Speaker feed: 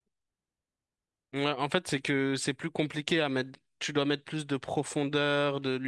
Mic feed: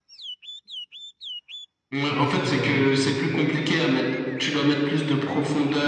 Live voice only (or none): Je sais pas si tu fais la même chose aussi.